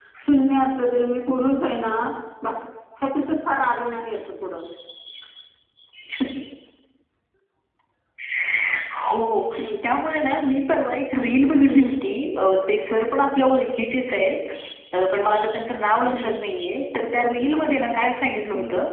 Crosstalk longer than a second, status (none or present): none